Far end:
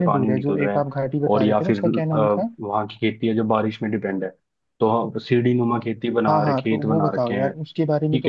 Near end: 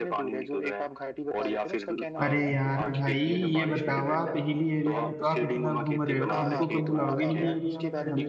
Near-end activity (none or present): present